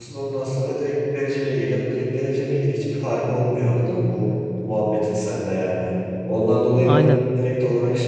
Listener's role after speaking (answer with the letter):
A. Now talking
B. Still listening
B